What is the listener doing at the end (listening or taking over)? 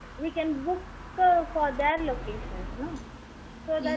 listening